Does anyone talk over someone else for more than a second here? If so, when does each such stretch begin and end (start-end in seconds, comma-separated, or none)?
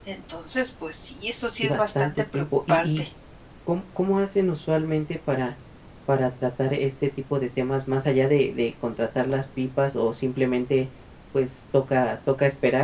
1.6-3.0